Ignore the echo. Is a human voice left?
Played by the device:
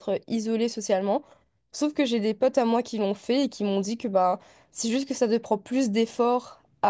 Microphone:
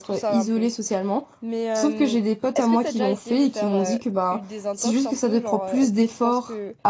Yes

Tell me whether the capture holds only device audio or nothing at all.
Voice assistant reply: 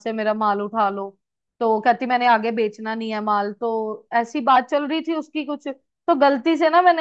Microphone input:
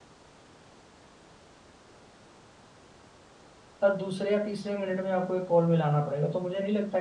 No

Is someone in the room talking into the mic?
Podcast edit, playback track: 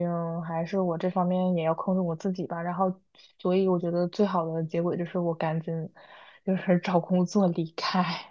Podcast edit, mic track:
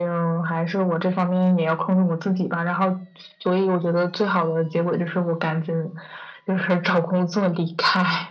No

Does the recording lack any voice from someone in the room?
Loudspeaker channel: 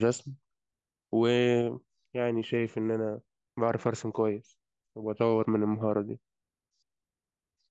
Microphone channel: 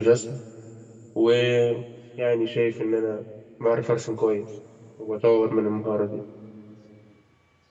Yes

